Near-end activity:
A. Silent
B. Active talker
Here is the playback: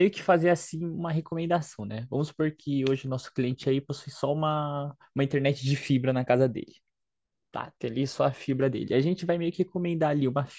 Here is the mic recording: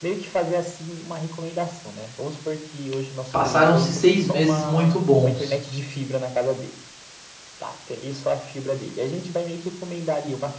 B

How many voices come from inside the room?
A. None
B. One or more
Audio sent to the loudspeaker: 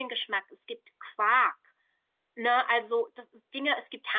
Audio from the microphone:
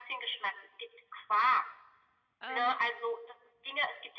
B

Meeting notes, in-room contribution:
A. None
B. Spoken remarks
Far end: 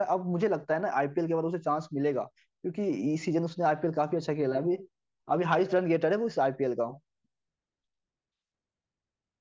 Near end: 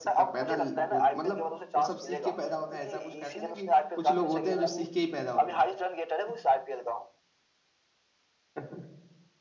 B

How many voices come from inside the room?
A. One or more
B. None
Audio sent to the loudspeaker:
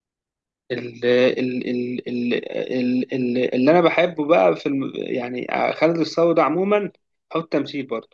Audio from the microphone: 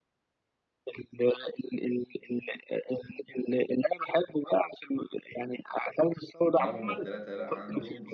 A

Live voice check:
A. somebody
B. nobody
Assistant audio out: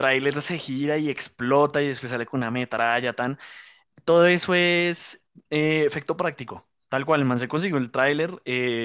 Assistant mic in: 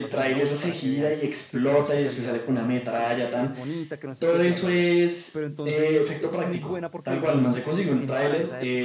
A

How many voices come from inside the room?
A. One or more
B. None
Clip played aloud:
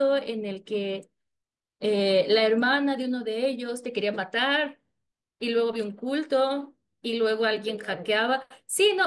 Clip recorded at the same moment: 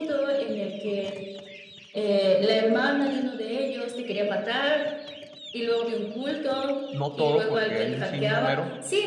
A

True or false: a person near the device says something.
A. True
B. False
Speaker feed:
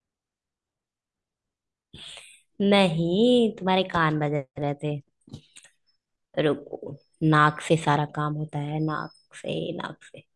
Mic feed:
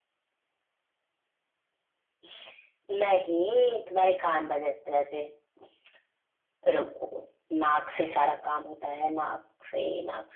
B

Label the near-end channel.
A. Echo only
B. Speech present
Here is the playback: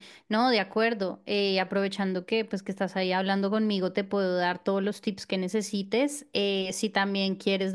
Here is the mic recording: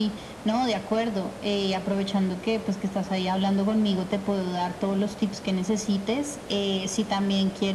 A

